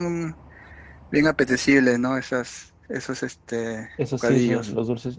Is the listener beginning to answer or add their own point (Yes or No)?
Yes